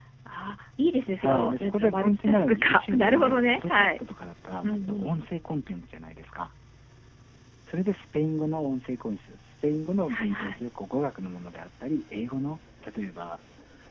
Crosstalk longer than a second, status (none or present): present